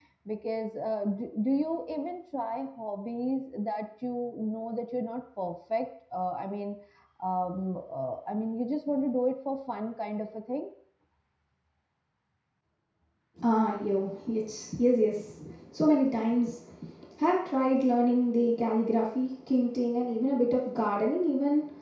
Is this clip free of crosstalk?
Yes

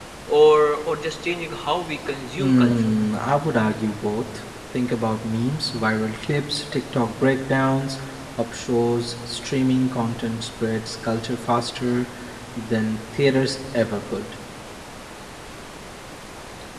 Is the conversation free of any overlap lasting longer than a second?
Yes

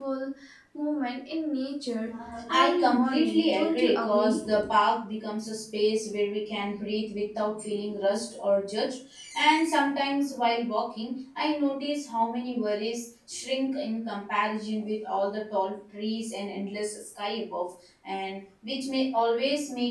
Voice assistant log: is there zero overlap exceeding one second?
No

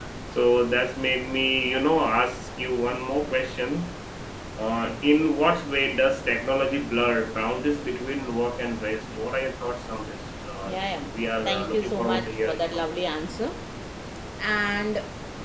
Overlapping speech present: Yes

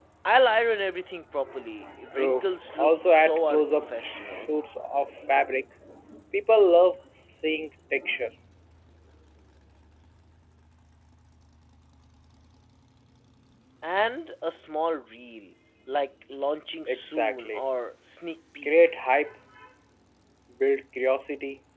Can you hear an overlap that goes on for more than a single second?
Yes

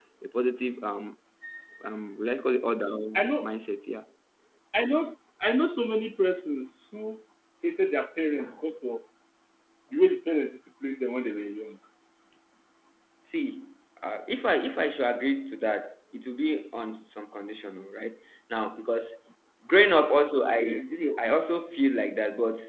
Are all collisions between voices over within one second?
Yes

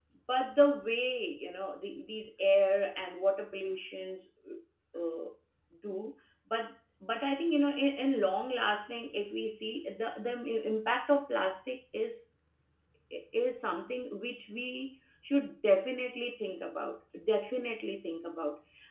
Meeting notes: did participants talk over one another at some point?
No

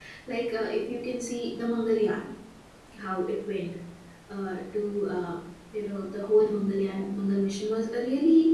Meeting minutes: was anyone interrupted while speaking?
No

